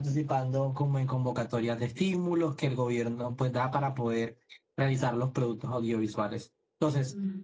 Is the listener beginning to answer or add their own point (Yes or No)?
No